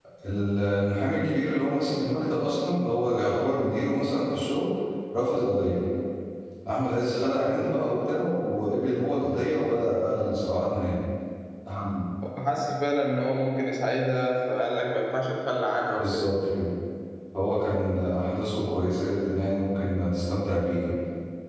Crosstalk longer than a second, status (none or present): none